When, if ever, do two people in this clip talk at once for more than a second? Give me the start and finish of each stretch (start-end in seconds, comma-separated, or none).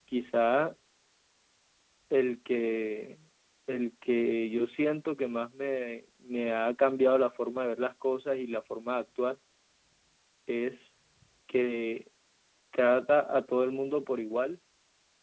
none